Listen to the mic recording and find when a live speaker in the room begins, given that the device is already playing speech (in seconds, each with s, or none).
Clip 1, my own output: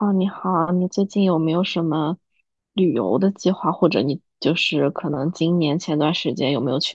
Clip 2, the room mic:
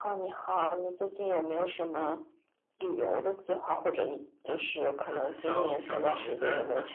5.0 s